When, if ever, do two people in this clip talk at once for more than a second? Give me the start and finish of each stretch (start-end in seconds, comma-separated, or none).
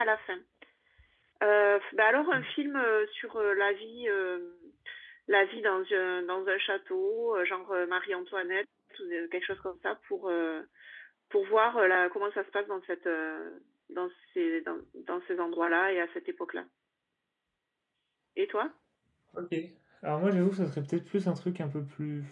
none